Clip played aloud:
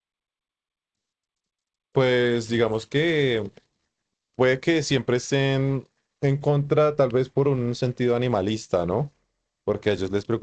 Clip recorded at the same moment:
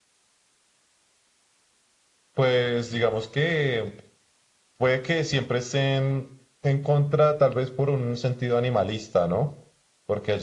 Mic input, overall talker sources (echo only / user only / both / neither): echo only